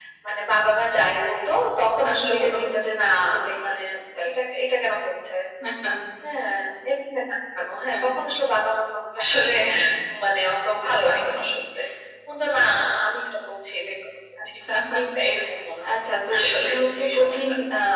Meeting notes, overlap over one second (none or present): present